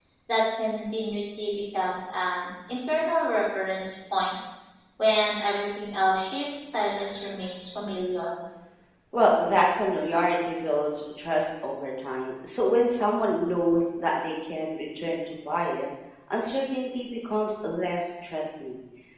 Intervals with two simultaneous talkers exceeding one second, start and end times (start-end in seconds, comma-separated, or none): none